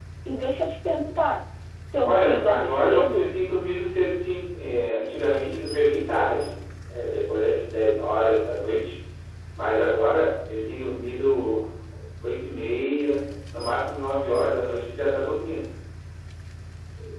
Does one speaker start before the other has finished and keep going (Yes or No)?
Yes